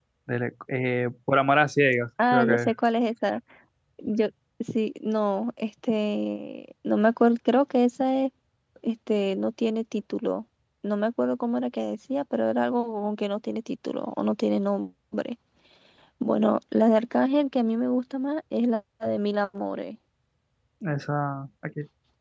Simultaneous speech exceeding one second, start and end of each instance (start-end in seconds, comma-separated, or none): none